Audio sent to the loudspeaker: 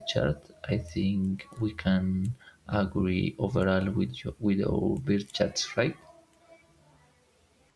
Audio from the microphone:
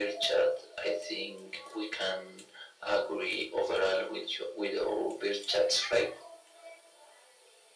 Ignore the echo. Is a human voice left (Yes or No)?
No